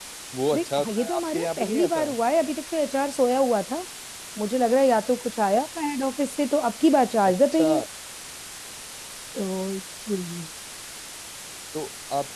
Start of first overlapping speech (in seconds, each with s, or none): 0.5 s